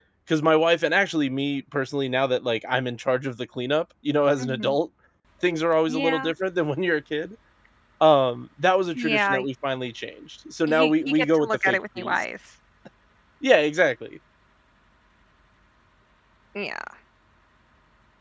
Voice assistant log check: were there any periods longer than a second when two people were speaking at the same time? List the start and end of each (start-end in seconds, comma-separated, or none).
10.7-12.2